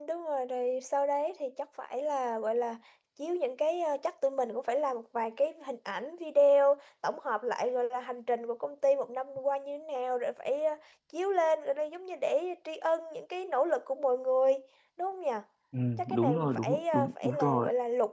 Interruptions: present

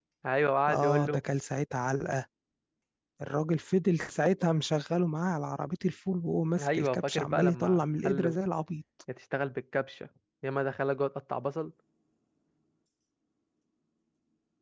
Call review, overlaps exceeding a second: present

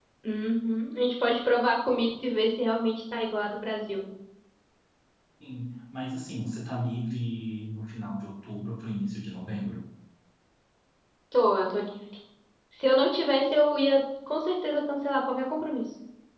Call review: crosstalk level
none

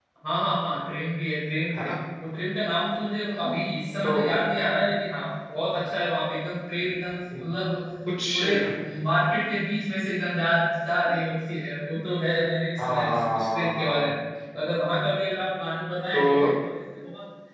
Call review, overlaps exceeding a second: present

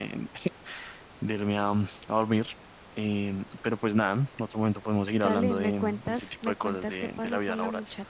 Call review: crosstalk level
present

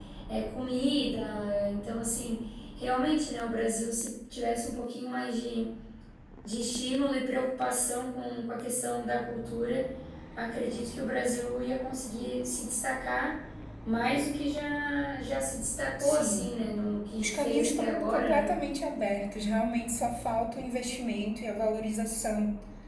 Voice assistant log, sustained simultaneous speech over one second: present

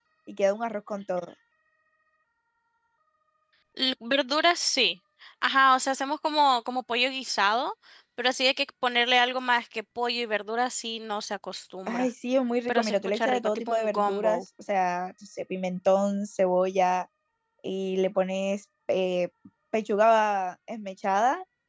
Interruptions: present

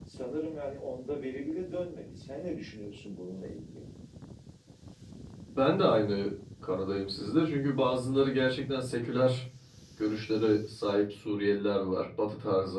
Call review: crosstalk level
none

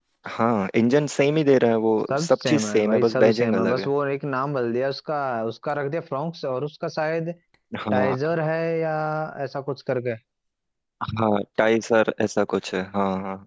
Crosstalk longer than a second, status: present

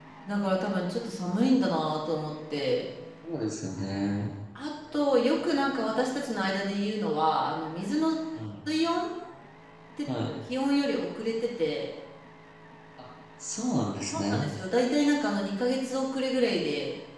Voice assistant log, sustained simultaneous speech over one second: none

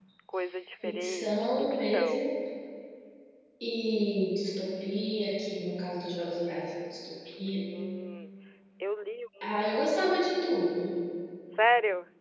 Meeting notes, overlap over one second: present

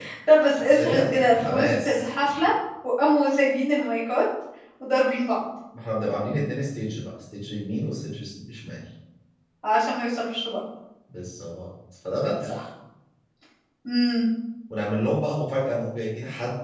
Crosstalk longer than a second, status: present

